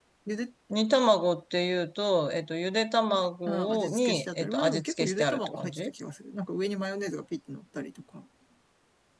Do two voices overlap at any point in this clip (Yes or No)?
Yes